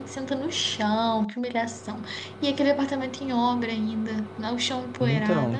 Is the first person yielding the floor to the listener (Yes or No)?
Yes